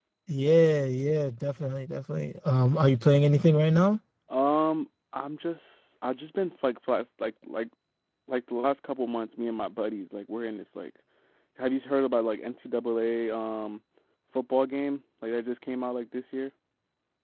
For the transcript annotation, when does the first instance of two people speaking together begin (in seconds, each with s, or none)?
none